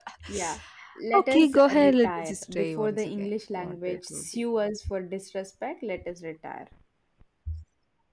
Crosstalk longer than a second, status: present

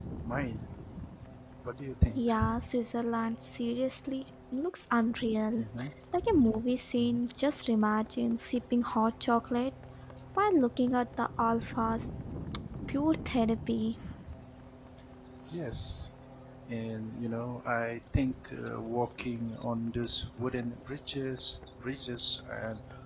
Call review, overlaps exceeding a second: none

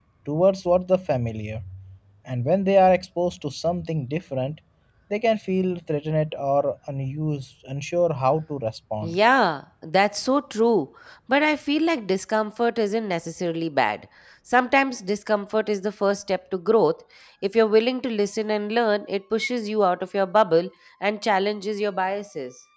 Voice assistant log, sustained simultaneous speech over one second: none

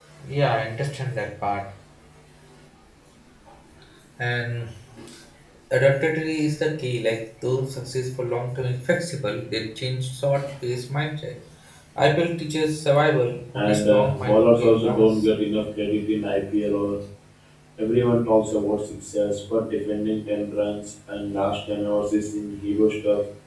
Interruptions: present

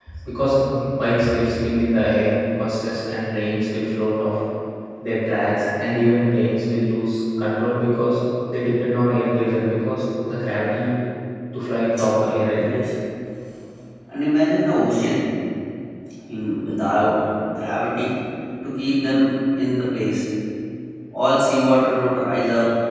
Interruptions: none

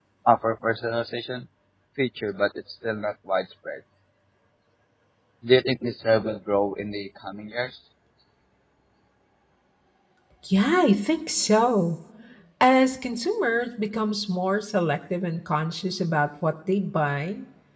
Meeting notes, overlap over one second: none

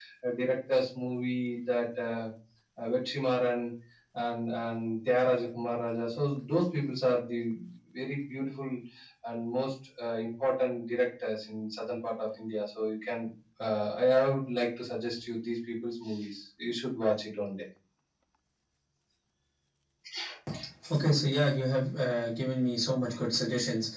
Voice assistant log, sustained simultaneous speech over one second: none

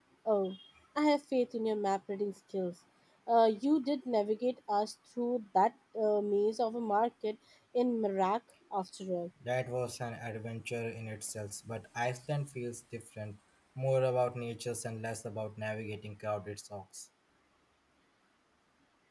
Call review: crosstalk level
none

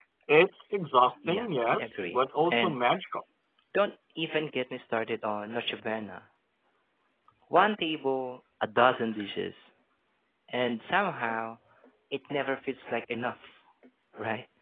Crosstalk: present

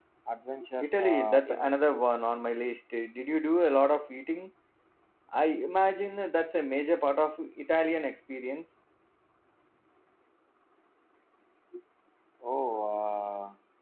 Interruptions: present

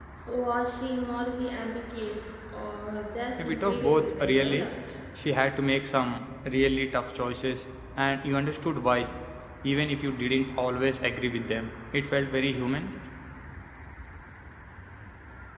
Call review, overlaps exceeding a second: present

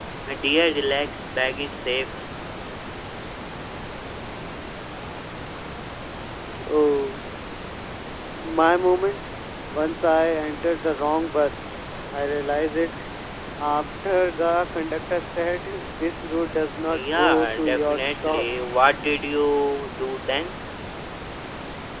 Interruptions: present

